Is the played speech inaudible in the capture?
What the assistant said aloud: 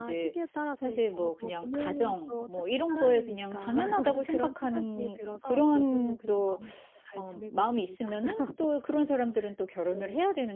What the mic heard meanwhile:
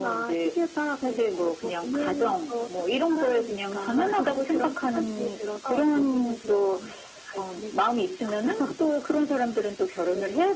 No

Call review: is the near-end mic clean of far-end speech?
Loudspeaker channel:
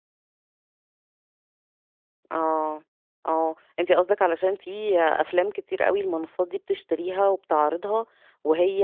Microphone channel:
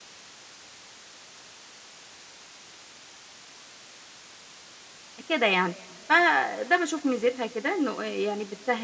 Yes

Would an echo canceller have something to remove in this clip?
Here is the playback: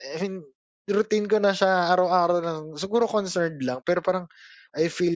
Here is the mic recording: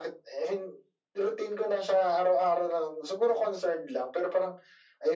Yes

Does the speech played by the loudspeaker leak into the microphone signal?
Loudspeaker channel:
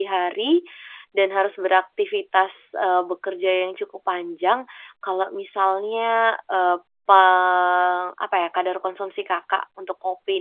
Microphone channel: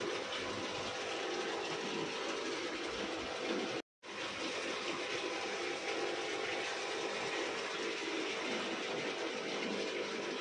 No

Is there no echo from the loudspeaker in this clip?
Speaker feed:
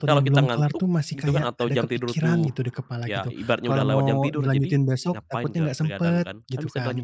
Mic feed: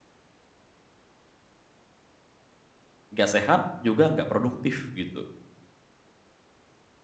Yes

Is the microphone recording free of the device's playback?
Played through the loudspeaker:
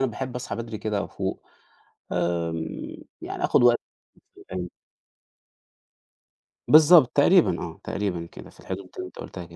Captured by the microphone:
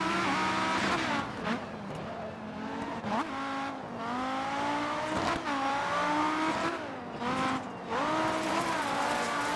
Yes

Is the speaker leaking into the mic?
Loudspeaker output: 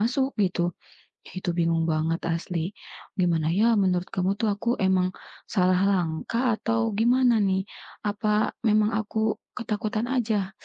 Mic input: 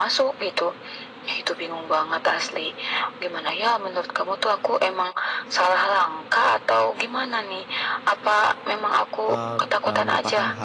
Yes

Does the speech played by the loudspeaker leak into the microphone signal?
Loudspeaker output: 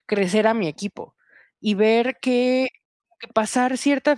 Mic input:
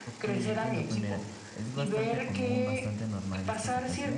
Yes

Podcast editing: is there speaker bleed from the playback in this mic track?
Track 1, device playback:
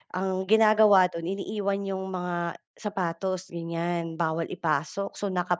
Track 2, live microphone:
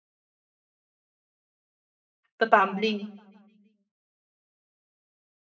No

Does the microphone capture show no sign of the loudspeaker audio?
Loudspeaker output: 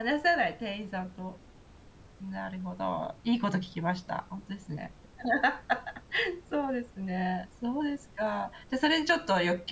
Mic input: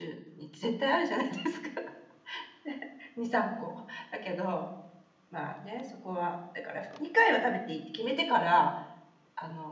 Yes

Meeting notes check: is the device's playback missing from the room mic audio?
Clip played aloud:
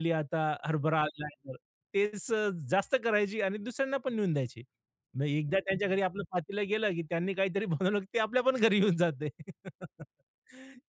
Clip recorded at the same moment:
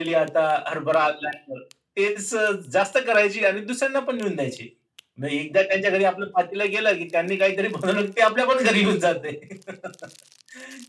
No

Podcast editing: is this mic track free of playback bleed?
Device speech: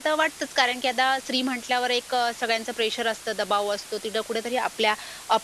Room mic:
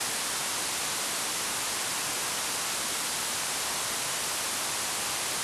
Yes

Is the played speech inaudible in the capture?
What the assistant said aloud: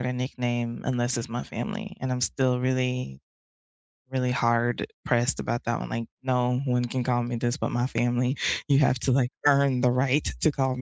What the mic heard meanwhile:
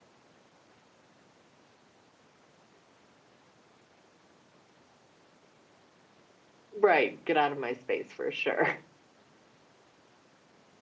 Yes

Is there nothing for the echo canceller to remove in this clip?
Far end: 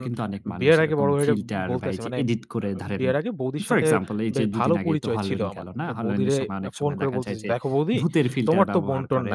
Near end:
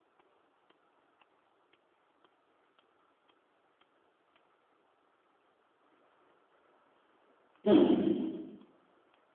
Yes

